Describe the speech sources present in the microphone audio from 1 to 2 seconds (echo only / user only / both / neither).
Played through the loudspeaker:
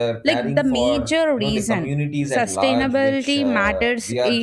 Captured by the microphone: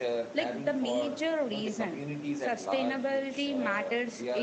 echo only